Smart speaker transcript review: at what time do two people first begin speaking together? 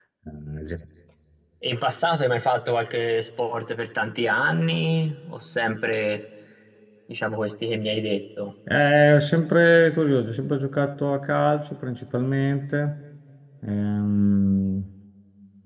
none

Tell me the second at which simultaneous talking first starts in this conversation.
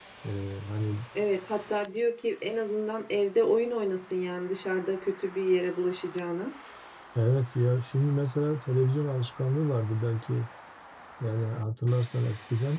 none

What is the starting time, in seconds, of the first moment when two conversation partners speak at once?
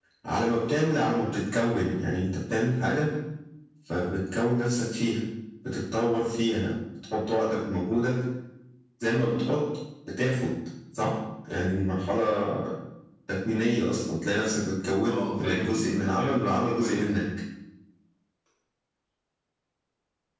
15 s

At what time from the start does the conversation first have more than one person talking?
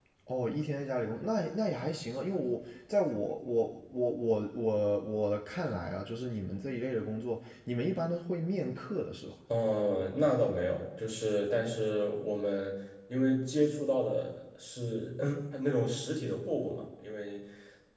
none

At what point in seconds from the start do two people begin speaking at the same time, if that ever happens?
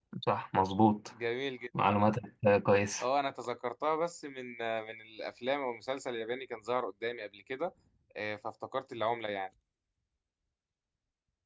none

